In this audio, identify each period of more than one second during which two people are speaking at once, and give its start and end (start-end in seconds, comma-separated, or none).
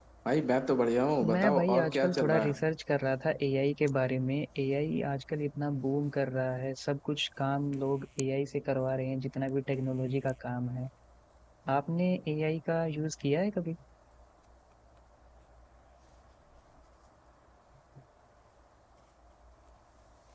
1.3-2.6